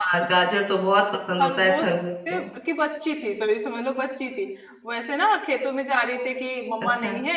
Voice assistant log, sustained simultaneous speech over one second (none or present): none